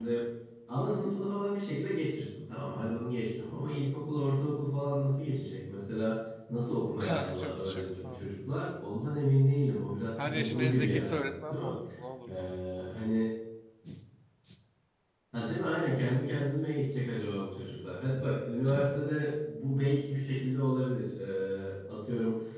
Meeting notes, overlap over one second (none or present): present